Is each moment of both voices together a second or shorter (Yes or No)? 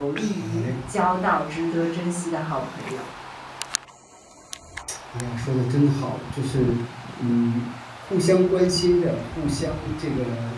Yes